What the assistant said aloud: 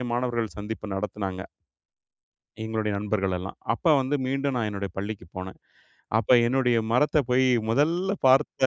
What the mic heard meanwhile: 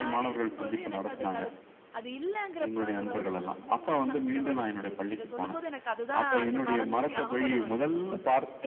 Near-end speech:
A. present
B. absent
A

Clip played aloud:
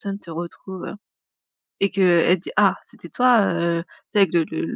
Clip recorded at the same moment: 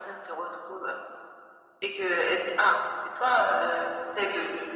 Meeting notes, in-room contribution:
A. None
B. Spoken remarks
A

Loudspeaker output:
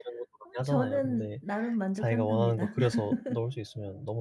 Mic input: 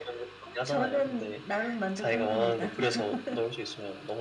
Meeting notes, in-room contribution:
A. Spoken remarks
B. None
B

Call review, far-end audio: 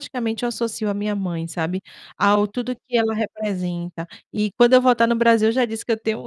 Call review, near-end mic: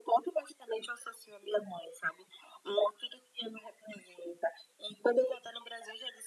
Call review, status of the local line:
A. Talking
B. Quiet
B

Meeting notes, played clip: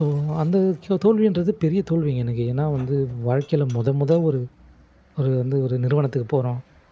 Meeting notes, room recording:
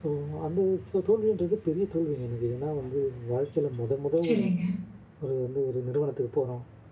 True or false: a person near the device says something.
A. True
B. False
A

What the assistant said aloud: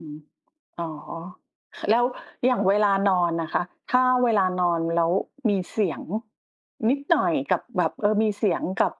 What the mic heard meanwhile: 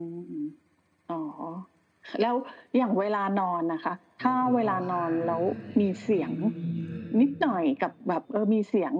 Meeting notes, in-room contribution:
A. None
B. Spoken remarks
B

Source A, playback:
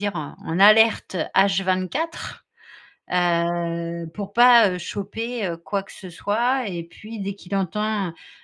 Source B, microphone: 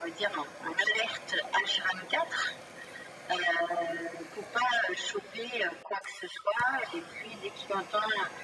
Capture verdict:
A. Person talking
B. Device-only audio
B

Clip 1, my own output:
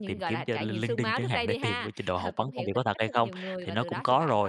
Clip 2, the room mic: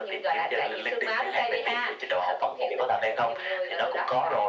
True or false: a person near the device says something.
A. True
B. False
B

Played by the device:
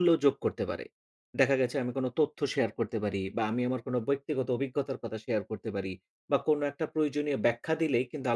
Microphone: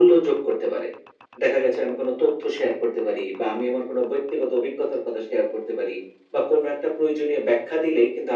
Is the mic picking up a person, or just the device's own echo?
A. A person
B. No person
B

